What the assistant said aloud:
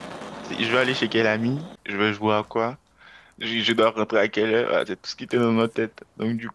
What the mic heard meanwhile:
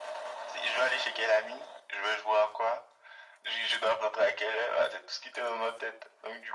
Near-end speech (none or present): none